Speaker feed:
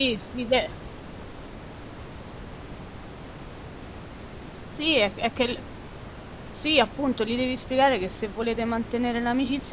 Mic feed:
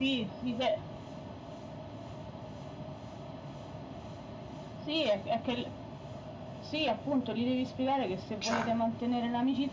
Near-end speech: present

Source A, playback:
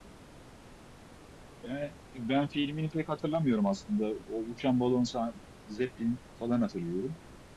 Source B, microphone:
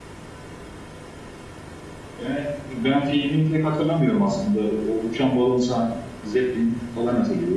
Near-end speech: none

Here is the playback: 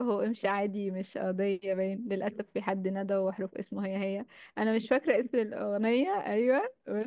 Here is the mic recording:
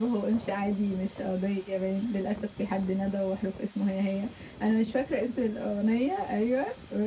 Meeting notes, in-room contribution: none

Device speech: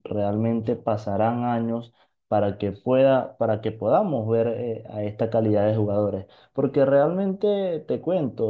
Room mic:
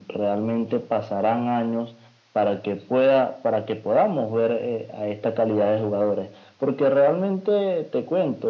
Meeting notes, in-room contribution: none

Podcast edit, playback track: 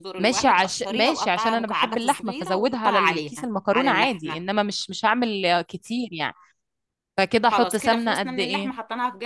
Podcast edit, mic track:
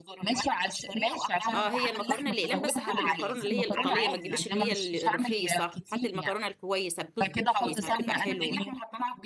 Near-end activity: present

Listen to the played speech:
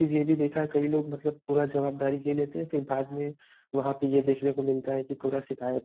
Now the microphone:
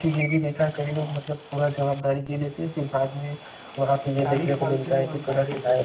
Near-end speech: present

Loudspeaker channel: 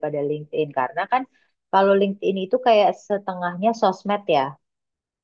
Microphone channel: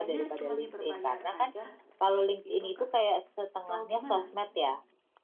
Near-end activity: present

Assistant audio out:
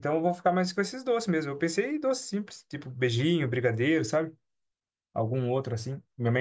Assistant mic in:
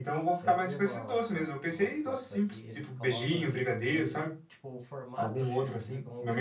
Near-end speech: present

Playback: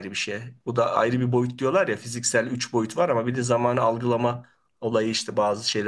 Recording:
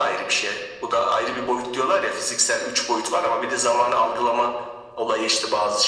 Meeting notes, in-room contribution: none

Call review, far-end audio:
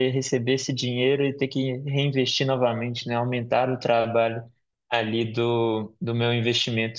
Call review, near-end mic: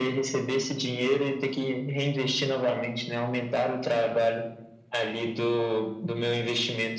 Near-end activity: none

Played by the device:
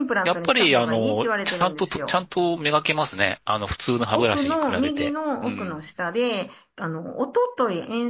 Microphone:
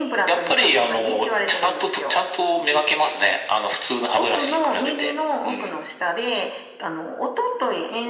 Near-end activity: none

